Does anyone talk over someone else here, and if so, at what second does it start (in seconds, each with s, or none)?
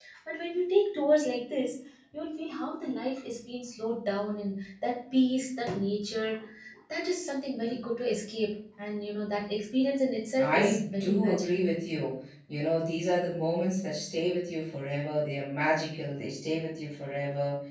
10.3 s